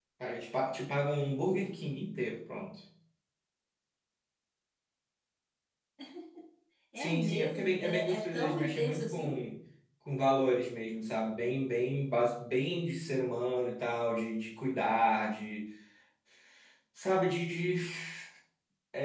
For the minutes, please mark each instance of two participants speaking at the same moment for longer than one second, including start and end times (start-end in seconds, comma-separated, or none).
7.0-9.3